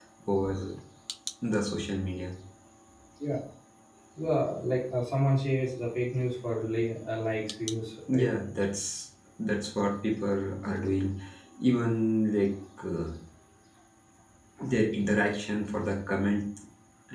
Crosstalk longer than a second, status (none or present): none